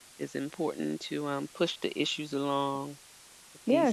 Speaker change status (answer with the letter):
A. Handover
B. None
A